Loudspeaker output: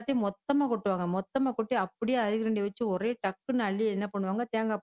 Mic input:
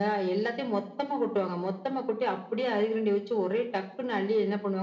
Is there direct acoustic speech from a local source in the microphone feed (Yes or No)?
No